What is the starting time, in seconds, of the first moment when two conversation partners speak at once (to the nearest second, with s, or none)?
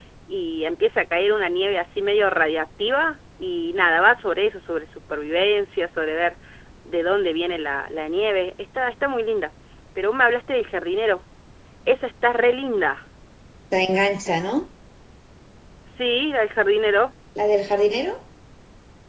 none